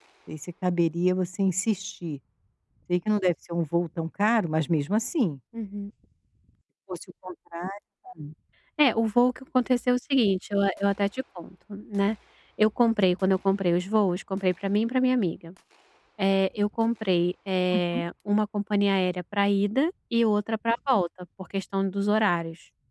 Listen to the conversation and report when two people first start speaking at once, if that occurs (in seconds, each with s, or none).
none